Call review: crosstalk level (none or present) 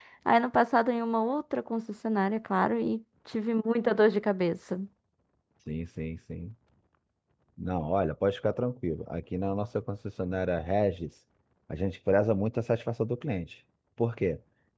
none